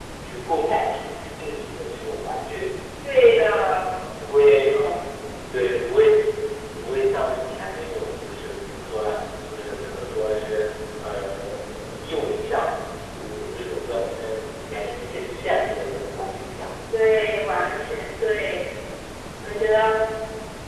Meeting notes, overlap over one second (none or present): none